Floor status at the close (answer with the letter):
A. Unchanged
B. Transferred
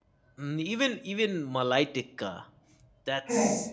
A